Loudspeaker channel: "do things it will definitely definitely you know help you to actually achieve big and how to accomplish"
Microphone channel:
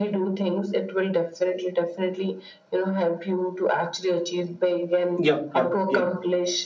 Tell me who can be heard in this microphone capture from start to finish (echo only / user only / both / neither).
both